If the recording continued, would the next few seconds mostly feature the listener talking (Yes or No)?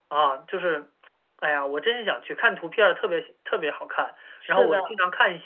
No